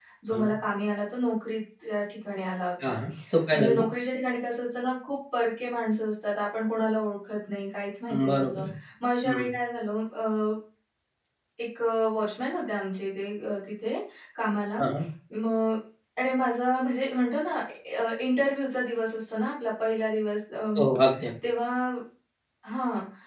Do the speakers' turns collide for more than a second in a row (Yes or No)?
No